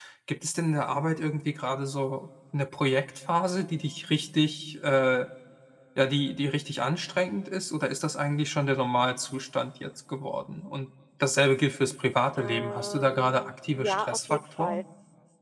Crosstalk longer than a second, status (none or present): present